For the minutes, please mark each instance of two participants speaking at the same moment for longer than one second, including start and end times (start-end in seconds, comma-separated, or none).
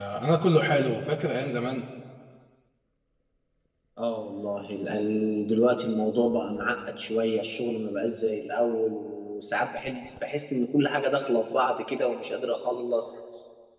none